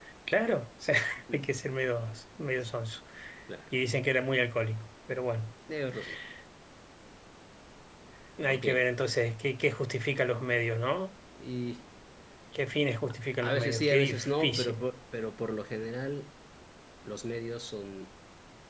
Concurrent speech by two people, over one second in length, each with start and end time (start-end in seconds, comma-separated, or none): 13.4-14.8